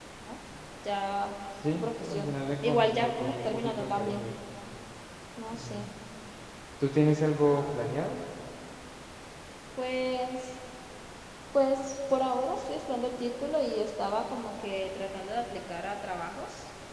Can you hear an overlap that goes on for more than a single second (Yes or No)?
Yes